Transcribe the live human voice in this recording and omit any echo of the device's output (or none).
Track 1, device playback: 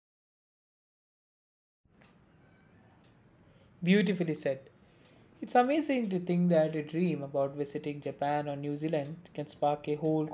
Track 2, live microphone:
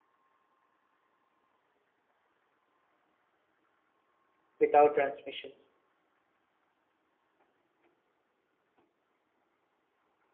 without transmissions,